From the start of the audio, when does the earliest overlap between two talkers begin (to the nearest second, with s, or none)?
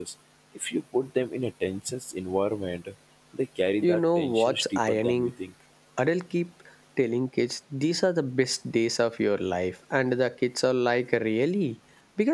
4 s